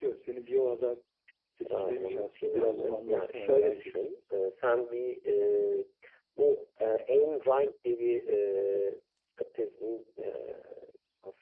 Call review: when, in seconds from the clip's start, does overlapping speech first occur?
1.7 s

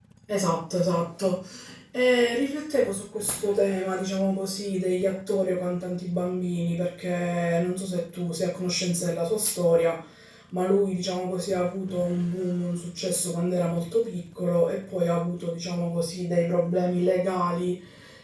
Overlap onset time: none

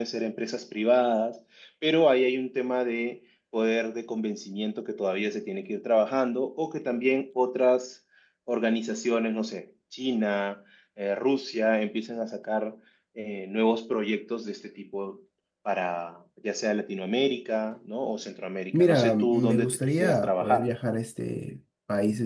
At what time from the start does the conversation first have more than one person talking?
18.7 s

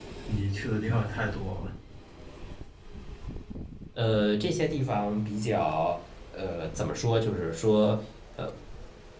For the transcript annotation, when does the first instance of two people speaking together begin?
none

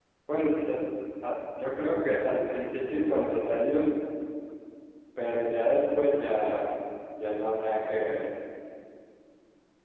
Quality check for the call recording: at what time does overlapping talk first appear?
none

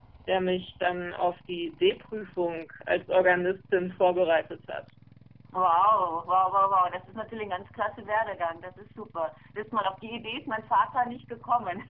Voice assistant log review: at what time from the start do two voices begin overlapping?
none

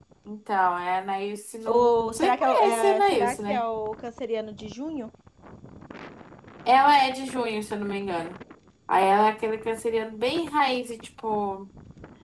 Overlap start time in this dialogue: 1.7 s

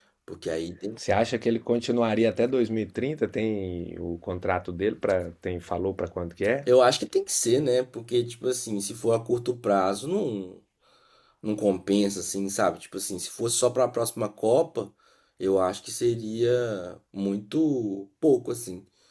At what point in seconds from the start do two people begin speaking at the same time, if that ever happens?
none

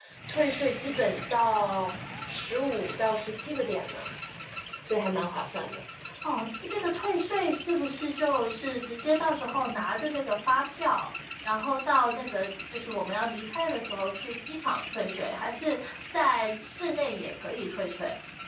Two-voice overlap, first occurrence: none

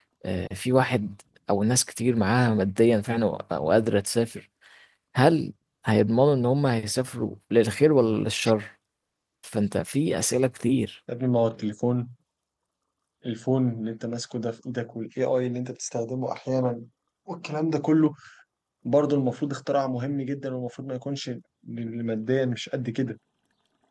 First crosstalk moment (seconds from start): none

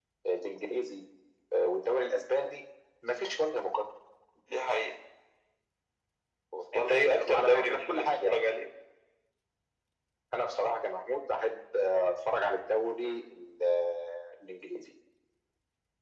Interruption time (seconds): 6.8 s

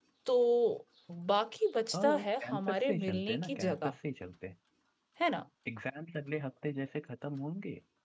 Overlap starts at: 1.9 s

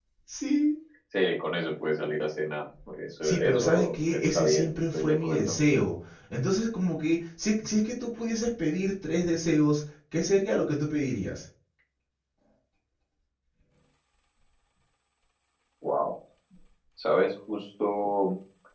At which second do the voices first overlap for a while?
3.2 s

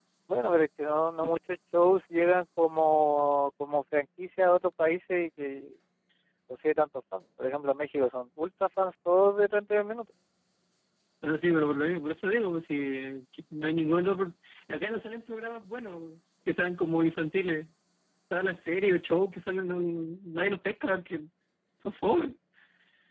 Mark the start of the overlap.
none

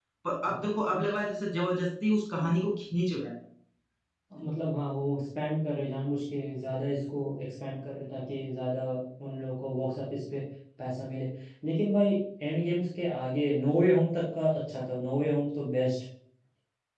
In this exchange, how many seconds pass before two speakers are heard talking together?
none

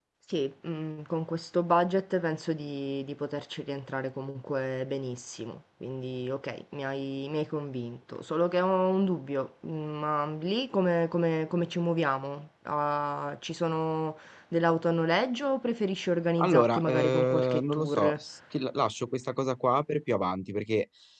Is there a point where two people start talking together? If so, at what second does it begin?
16.4 s

